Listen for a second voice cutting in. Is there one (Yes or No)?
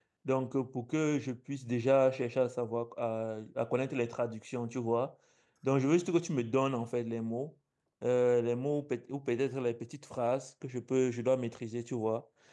No